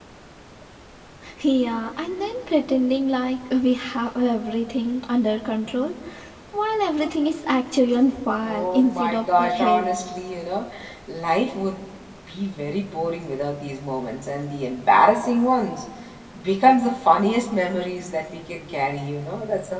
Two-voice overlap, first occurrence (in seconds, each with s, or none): 8.4 s